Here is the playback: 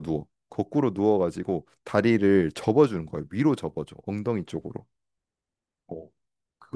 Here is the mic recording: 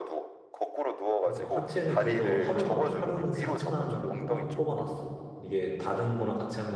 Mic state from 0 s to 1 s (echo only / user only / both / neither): echo only